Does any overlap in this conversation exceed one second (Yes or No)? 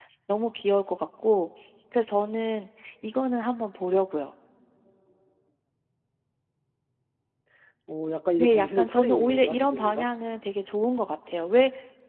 Yes